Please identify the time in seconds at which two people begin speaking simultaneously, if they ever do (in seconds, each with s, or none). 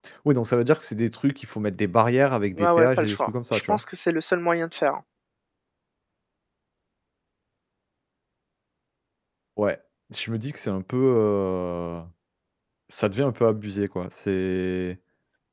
2.6 s